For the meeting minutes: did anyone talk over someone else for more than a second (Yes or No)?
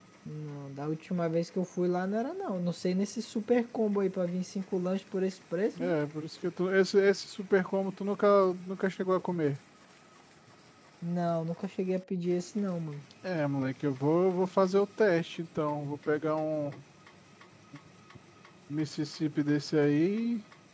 No